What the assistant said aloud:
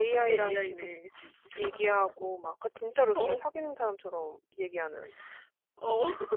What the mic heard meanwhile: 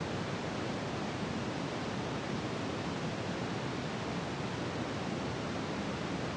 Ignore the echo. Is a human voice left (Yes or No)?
No